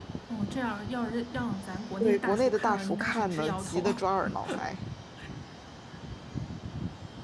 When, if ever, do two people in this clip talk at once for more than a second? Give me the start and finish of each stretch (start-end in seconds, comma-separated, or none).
2.0-3.9